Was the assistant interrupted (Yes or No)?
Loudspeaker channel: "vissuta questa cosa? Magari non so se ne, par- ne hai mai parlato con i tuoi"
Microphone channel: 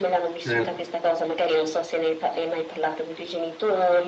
Yes